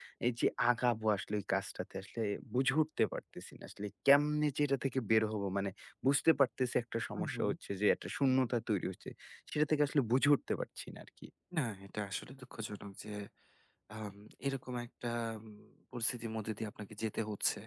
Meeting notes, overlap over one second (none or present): none